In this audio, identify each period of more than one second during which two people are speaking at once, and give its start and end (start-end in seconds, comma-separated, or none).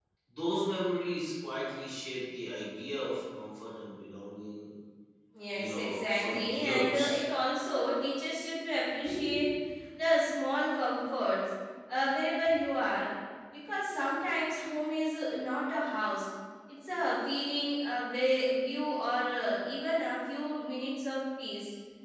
5.5-7.2